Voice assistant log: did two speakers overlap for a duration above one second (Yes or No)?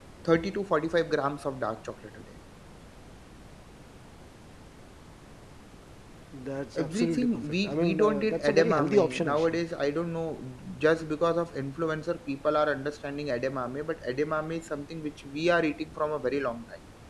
Yes